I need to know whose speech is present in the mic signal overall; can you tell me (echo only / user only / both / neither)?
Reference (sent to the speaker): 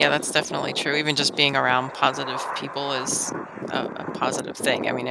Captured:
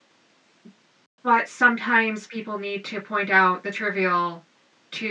user only